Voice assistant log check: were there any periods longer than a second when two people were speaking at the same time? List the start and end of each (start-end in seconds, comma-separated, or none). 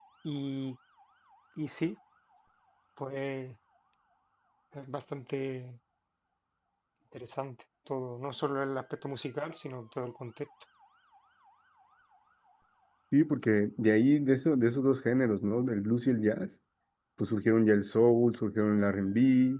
none